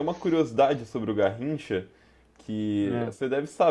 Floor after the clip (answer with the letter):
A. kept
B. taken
A